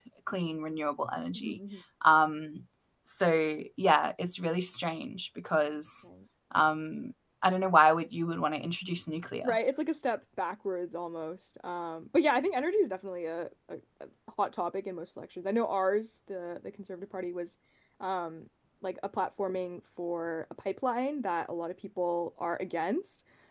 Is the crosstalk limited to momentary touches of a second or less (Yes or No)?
Yes